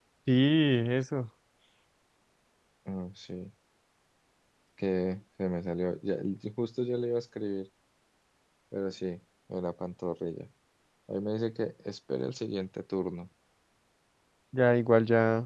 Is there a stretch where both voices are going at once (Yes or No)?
No